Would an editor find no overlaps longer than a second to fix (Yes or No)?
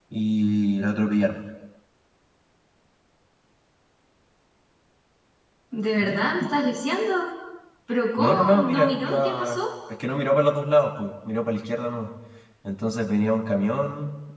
No